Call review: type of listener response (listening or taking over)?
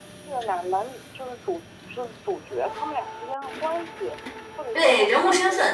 taking over